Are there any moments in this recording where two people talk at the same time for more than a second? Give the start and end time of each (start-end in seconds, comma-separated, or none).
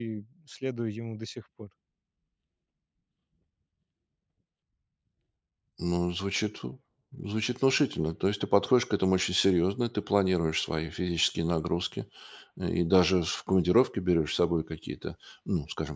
none